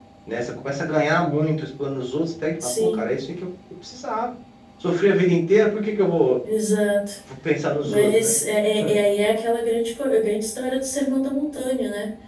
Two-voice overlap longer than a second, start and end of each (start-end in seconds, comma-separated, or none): none